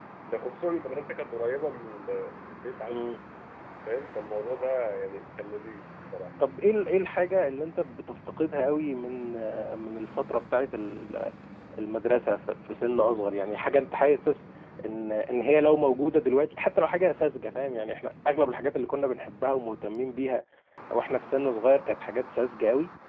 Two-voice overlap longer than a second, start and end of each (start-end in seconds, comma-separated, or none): none